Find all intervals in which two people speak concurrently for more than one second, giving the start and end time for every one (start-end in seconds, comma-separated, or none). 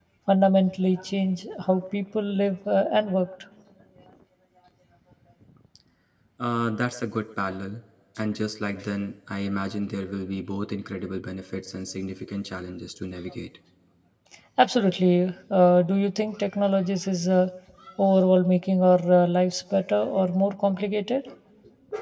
none